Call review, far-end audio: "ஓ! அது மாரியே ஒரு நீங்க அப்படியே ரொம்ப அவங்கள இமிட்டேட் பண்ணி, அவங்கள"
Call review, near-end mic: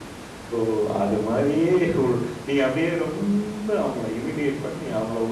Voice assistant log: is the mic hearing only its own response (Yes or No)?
Yes